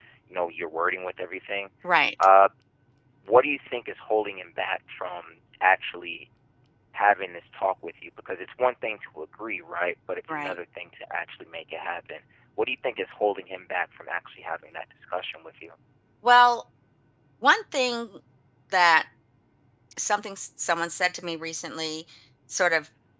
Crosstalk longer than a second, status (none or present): none